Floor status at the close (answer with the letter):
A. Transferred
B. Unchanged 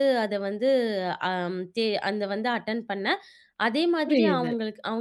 A